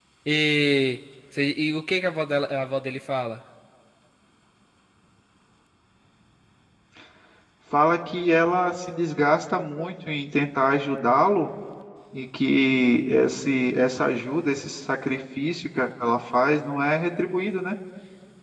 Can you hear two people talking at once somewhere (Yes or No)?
No